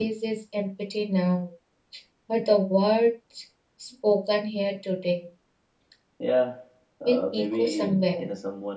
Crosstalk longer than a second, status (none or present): present